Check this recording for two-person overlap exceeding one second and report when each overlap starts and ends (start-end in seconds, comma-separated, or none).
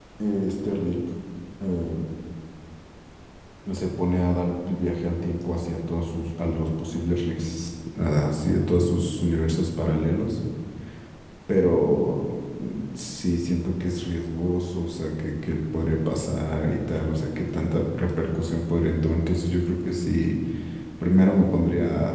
none